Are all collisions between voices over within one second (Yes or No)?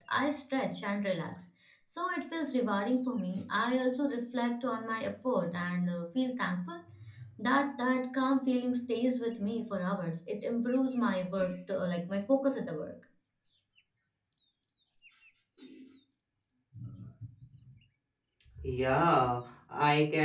Yes